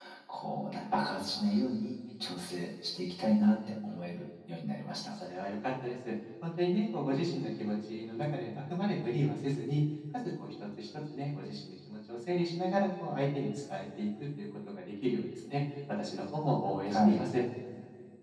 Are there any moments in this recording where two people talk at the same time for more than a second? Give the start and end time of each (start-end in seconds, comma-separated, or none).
none